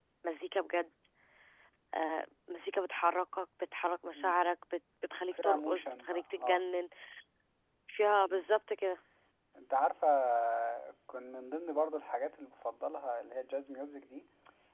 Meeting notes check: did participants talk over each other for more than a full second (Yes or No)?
Yes